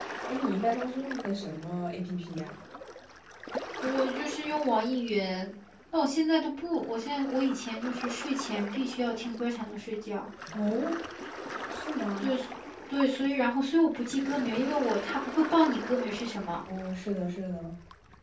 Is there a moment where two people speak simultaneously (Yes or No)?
No